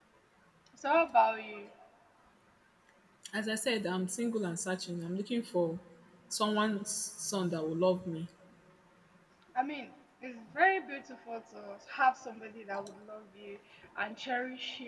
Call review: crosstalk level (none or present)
none